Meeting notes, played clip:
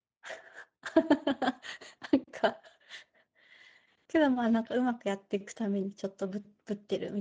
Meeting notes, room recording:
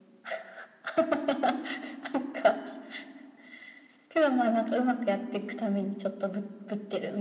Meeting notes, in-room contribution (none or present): none